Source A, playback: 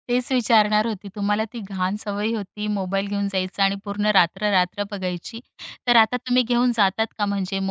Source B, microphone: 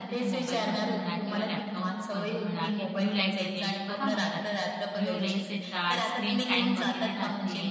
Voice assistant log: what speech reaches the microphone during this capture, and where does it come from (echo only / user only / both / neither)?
both